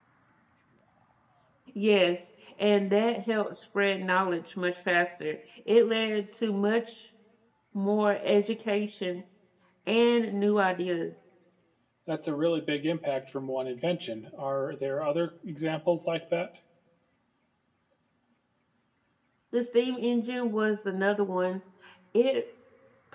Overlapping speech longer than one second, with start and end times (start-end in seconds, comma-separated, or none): none